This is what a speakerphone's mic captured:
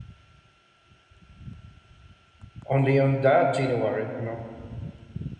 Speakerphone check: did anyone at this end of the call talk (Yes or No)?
Yes